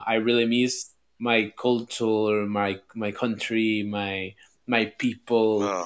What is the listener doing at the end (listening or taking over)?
listening